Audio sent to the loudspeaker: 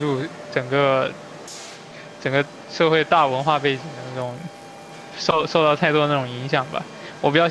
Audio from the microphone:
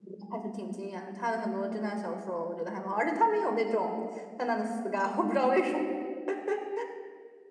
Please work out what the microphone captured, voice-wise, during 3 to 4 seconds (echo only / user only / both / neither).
user only